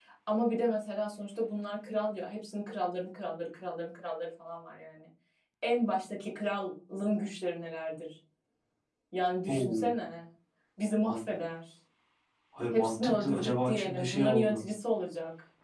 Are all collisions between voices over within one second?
No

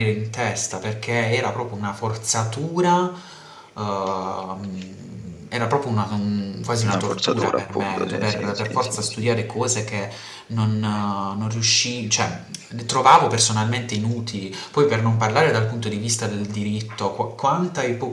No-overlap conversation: No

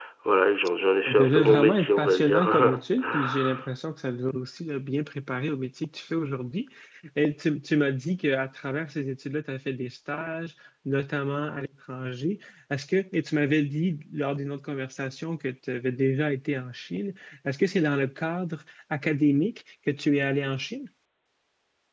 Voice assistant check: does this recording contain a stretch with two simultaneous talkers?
Yes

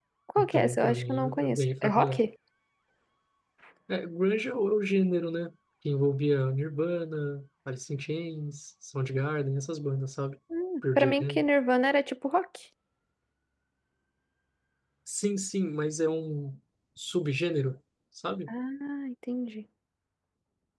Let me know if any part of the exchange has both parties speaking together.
Yes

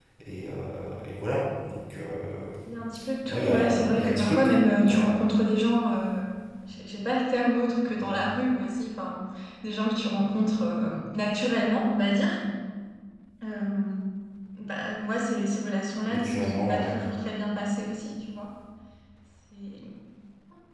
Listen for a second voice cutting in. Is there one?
Yes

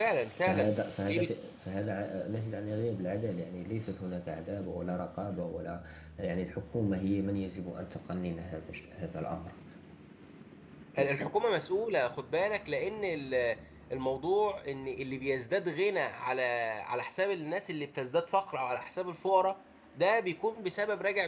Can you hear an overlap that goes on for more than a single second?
Yes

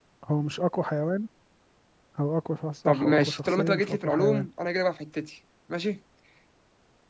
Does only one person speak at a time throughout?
No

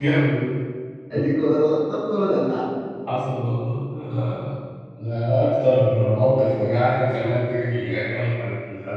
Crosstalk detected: No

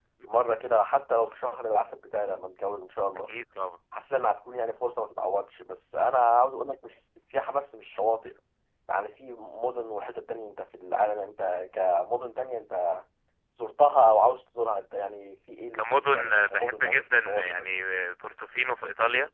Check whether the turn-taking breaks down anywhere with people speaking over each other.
Yes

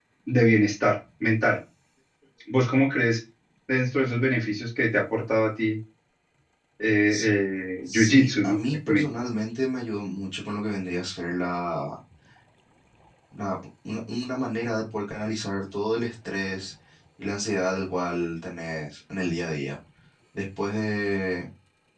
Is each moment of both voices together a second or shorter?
No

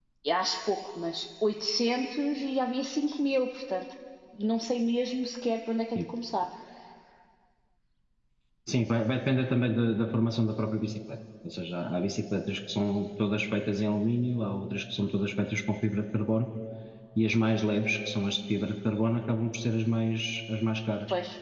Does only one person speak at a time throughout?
Yes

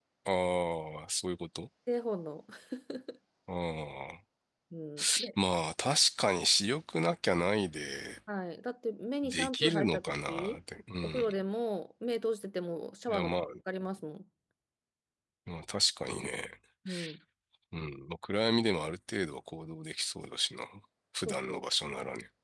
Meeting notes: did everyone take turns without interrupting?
No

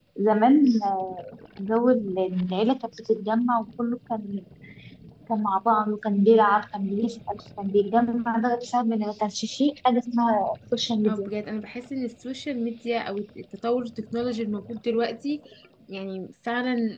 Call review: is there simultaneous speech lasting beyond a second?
No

